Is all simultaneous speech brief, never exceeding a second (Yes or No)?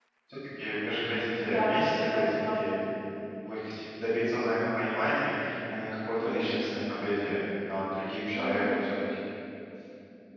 No